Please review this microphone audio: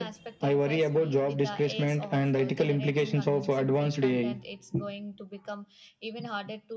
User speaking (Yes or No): Yes